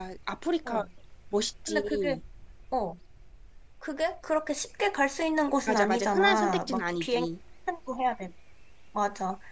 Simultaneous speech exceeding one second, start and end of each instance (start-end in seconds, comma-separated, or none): 5.7-7.3